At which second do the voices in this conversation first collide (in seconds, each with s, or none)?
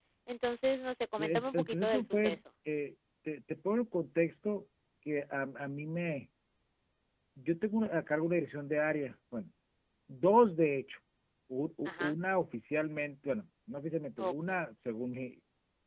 1.1 s